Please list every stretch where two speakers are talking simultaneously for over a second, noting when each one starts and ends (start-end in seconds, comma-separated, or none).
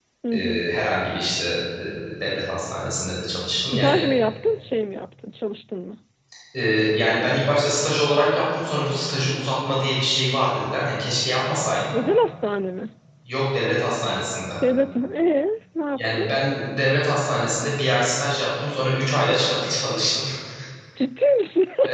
none